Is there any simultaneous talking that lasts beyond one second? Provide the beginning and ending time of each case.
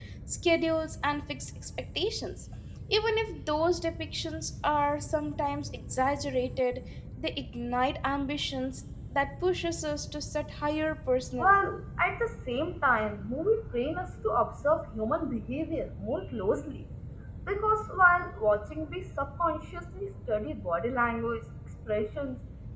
none

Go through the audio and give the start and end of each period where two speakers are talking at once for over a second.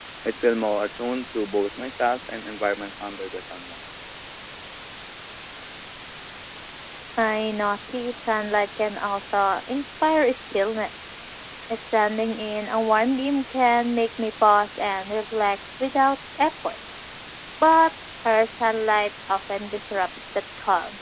none

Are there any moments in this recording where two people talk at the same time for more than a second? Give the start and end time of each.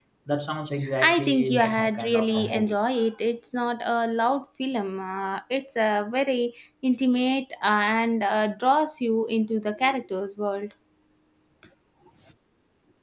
1.0-2.8

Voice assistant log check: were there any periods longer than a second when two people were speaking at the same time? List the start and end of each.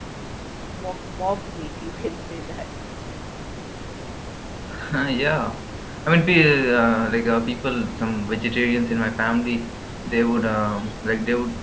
none

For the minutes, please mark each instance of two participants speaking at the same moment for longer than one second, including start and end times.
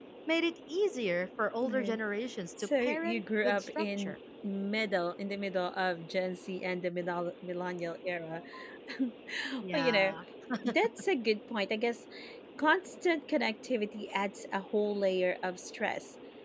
2.6-4.2

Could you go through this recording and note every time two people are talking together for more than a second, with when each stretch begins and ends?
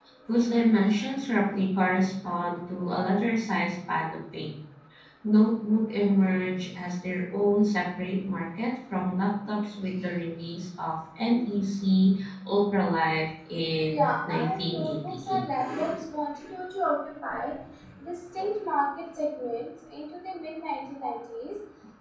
13.9-15.4

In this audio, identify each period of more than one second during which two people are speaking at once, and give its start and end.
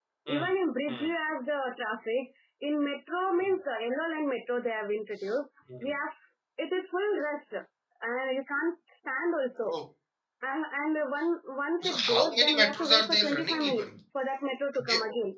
11.8-13.9

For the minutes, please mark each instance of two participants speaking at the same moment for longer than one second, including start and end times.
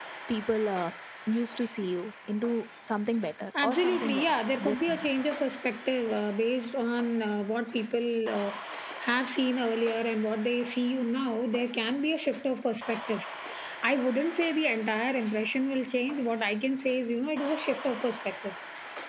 3.6-5.3

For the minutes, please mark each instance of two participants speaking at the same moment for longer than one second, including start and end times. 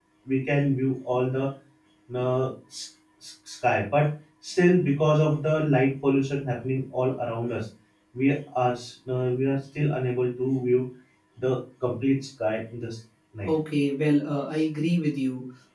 none

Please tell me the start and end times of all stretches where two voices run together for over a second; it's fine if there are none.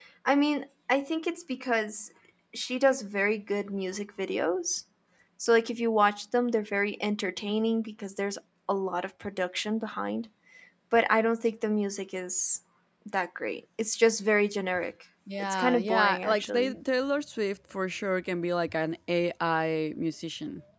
15.4-16.8

